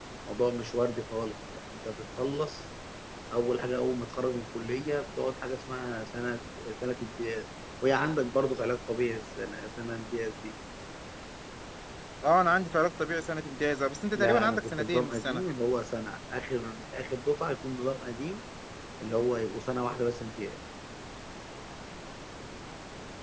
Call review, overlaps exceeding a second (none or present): present